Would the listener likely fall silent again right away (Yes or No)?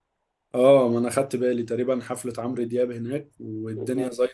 Yes